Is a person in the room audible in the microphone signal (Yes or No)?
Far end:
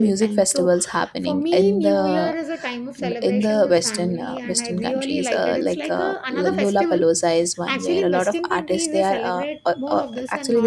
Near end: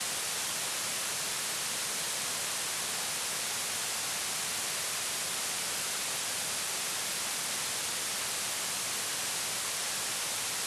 No